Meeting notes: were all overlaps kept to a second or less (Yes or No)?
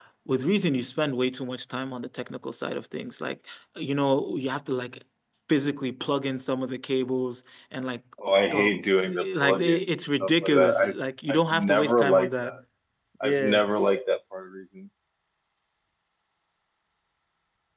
No